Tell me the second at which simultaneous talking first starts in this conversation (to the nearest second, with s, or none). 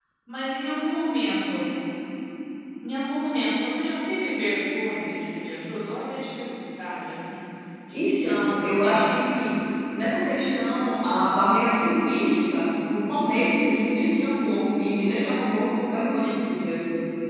8 s